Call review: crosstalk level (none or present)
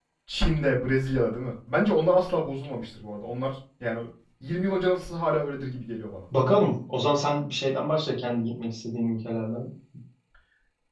none